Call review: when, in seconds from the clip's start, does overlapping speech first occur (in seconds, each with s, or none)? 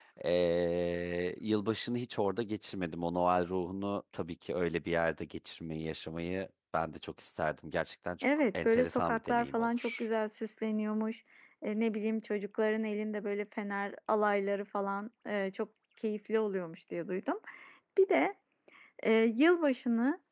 8.2 s